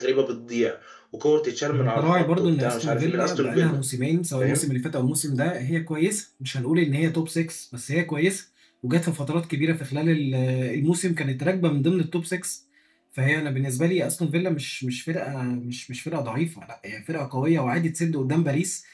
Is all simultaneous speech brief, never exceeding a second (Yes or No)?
No